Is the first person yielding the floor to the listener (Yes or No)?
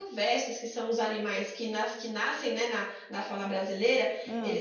No